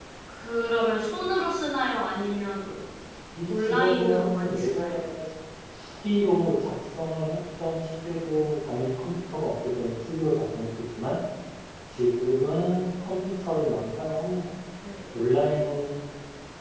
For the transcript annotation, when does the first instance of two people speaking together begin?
4 s

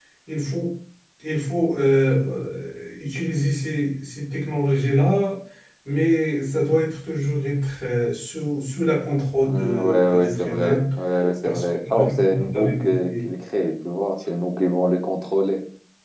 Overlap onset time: 9 s

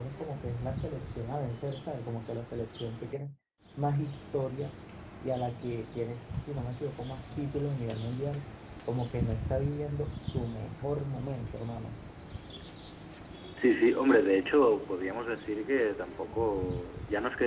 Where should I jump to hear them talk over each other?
none

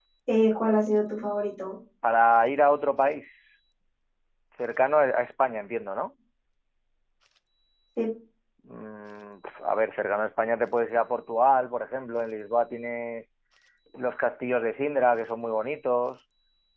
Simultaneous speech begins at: none

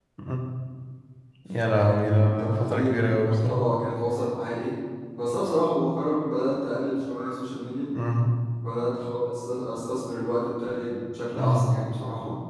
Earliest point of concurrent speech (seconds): 2 s

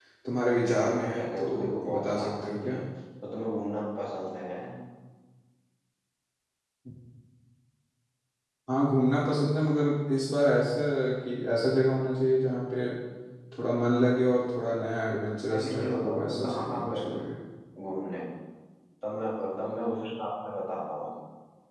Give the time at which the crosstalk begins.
1 s

